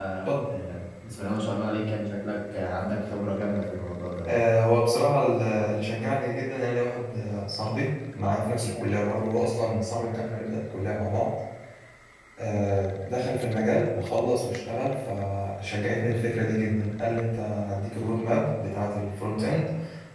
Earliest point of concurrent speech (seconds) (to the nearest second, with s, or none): none